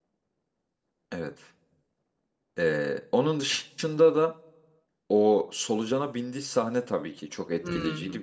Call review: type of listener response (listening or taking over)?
listening